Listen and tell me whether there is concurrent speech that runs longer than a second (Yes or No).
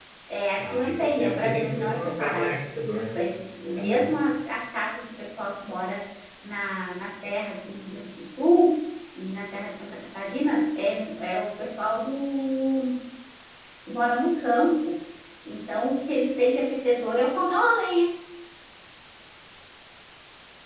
Yes